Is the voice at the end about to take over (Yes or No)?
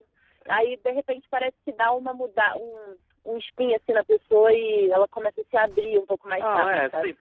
Yes